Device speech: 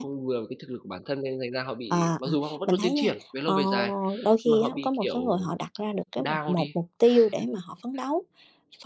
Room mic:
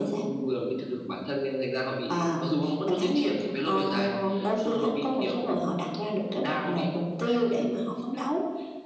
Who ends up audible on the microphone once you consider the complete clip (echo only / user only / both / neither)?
echo only